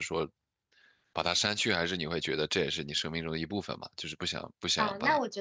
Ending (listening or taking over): taking over